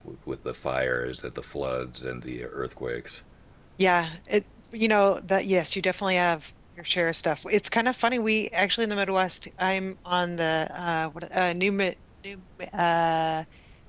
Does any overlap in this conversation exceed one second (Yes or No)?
No